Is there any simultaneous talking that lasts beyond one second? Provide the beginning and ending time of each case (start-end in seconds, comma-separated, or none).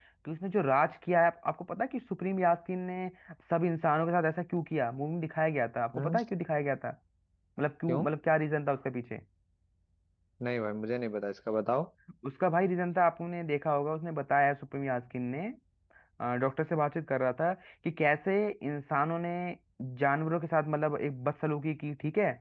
none